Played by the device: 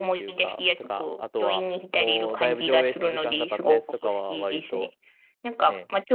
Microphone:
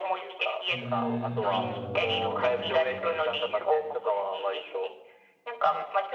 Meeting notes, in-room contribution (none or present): present